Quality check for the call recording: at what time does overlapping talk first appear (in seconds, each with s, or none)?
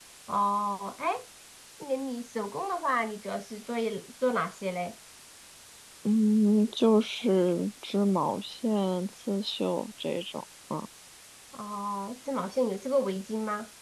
none